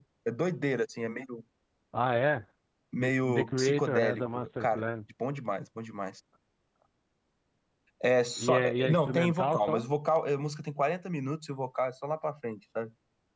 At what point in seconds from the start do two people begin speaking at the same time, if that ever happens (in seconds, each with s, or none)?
3.0 s